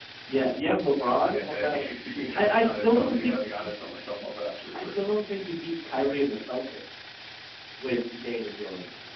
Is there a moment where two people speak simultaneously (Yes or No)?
Yes